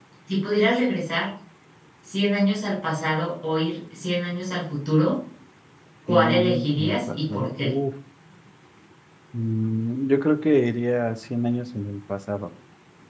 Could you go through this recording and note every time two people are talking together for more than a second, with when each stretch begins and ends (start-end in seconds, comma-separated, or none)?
6.1-7.7